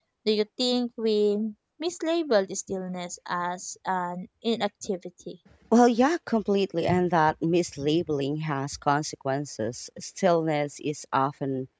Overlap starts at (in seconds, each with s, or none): none